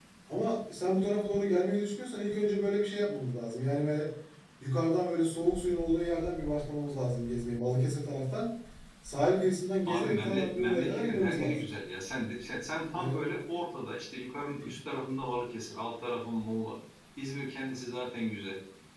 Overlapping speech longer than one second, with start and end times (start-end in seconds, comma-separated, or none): 9.9-11.6